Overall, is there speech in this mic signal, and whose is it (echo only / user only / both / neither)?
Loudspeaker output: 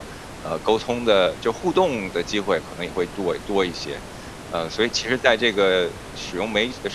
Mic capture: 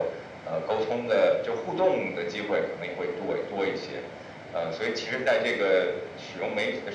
echo only